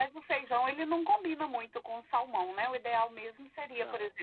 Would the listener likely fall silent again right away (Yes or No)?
Yes